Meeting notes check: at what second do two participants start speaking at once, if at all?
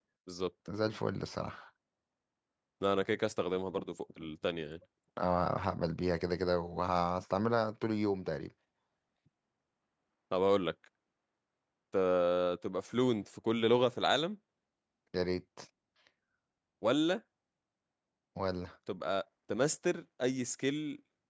none

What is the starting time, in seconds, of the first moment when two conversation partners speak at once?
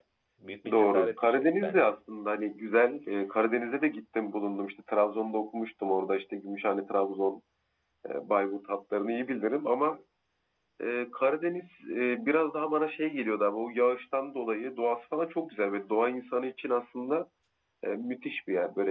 0.7 s

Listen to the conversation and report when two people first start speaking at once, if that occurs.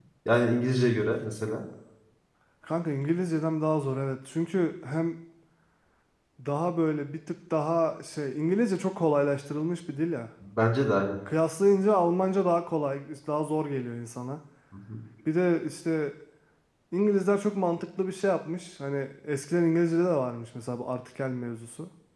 none

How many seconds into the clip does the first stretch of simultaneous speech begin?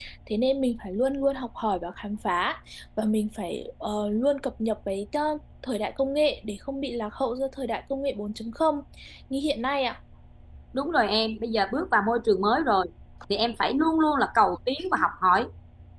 none

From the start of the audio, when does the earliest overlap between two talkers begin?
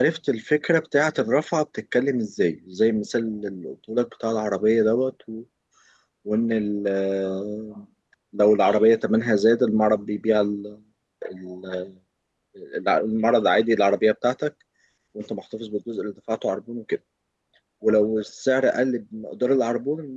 none

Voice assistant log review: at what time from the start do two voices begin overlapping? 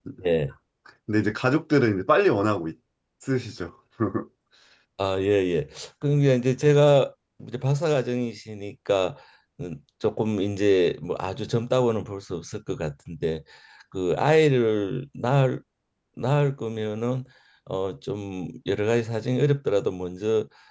none

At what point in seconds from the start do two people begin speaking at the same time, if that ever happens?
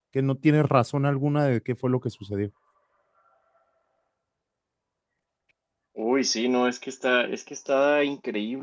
none

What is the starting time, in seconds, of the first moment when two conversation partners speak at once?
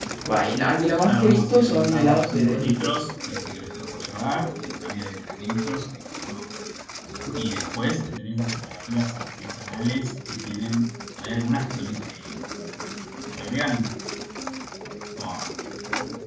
1.1 s

